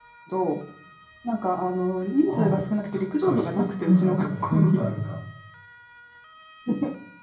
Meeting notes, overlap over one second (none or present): present